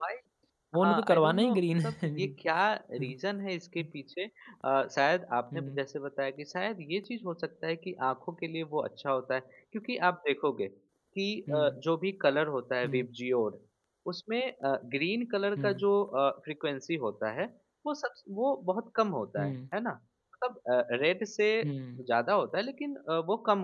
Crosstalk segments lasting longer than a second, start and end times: 0.8-2.3

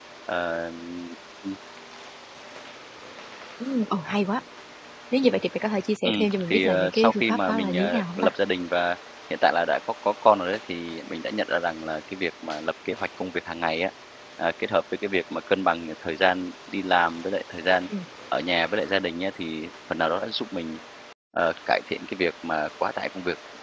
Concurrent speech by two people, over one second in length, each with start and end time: 6.0-8.3

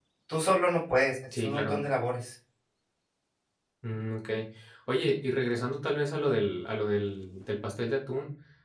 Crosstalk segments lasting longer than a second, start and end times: none

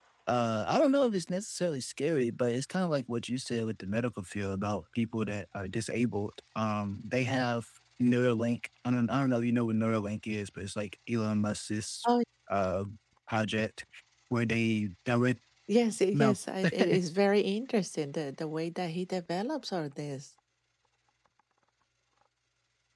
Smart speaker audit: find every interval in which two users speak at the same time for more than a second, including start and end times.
none

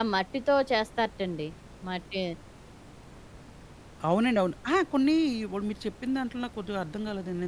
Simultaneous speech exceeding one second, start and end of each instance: none

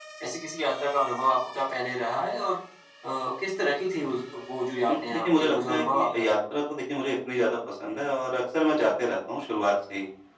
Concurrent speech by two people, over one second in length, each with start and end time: 4.9-6.3

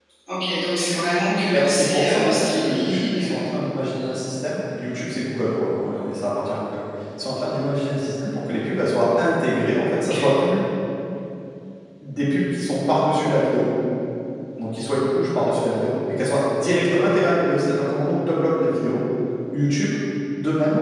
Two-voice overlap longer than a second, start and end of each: 1.5-3.5

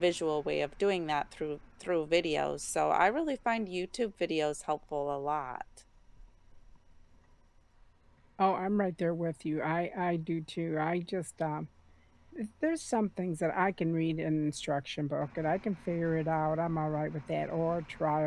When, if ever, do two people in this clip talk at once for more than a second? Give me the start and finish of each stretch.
none

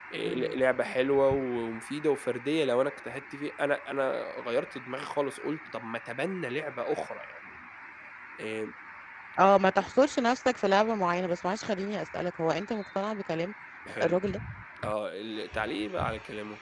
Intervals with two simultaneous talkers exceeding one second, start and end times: none

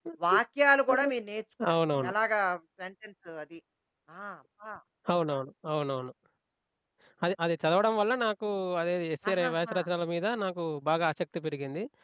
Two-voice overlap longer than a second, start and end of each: none

